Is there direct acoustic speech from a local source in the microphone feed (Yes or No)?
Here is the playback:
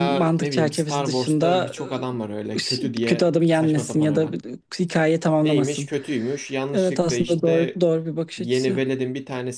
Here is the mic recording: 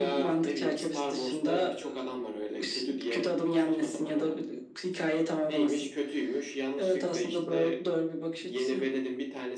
No